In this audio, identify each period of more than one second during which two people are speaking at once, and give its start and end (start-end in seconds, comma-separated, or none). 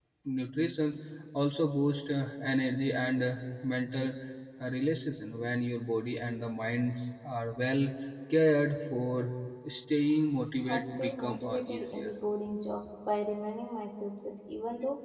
10.6-12.1